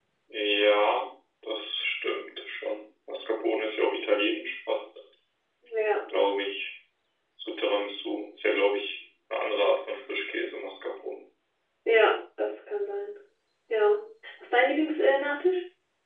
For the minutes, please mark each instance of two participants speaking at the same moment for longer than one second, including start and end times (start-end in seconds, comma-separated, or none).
none